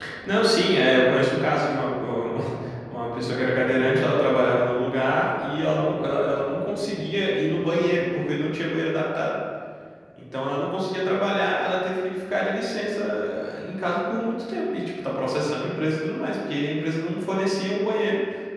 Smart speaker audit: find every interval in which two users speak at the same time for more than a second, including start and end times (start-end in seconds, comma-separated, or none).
none